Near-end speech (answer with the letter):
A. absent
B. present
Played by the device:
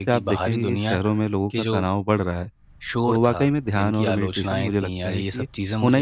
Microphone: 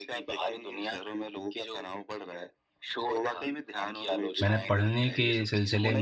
B